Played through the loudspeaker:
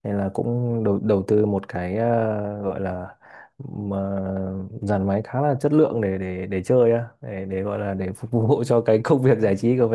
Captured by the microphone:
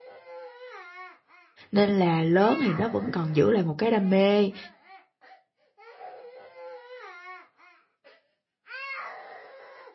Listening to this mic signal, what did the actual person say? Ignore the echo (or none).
nên là lớn thì nó vẫn còn giữ lại một cái đam mê